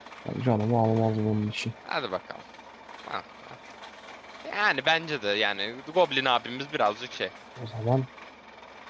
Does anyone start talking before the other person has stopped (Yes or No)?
No